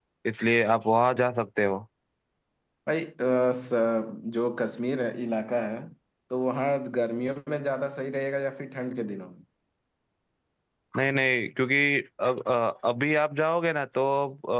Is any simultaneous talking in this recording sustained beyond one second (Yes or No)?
No